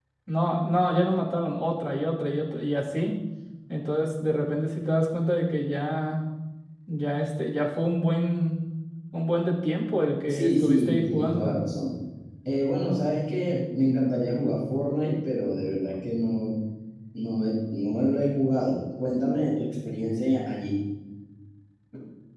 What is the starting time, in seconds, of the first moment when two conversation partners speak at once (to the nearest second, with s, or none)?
10 s